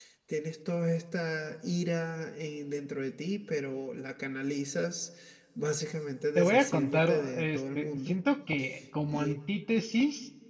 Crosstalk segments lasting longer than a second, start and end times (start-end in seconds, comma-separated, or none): 6.4-8.2